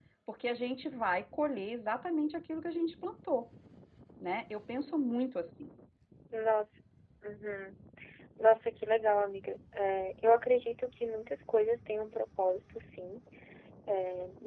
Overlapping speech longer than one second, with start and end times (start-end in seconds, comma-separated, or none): none